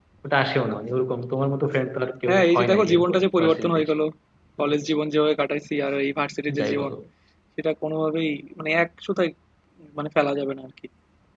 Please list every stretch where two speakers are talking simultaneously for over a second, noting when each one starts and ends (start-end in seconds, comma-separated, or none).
2.3-3.9